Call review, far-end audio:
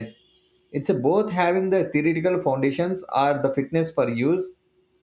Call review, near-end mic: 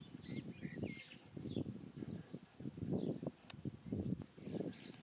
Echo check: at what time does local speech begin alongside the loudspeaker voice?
none

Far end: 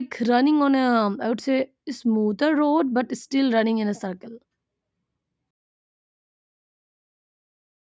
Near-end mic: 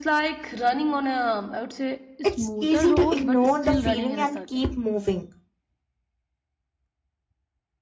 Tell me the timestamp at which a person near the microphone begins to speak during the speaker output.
2 s

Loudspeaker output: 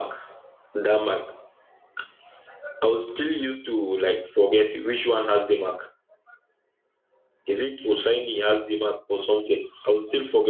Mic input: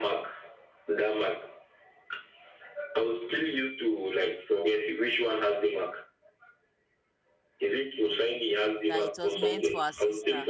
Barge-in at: 9 s

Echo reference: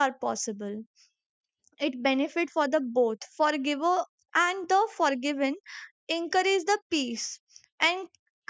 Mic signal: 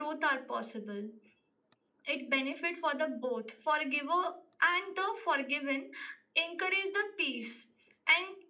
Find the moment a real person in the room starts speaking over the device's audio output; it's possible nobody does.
none

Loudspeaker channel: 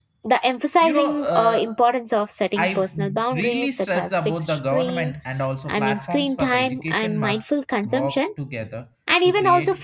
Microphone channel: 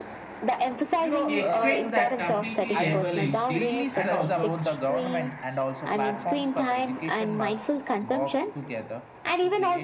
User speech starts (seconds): 1 s

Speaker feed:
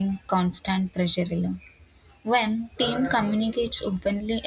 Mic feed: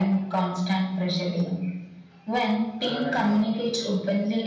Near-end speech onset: none

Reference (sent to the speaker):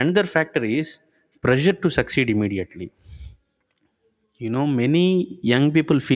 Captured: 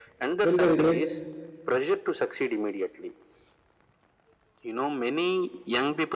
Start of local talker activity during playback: 0 s

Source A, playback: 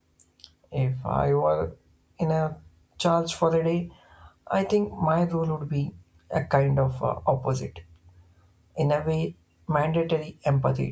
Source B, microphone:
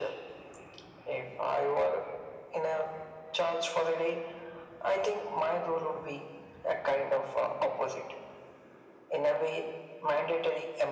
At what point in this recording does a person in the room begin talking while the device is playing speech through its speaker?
none

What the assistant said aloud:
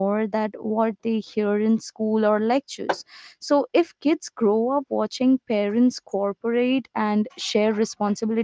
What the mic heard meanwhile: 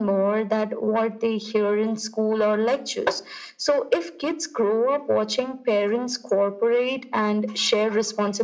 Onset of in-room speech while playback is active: none

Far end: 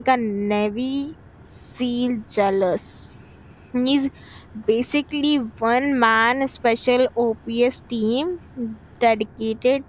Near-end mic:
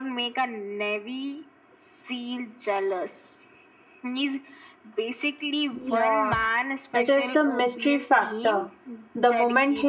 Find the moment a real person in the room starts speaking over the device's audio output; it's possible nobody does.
6 s

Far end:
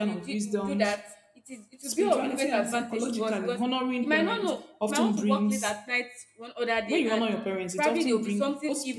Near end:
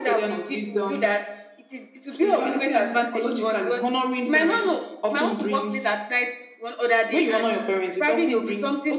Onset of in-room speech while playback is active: none

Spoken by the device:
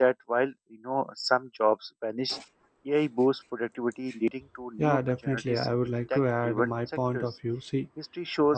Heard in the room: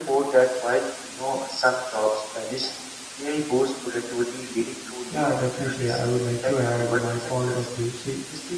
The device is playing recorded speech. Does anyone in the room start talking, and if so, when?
none

